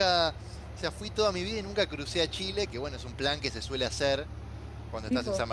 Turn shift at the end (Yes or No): No